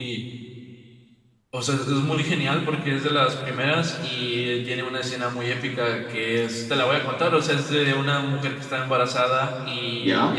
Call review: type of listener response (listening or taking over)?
listening